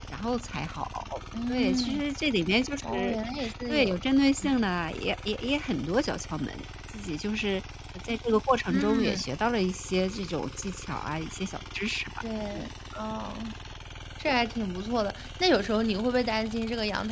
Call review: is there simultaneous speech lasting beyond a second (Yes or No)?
No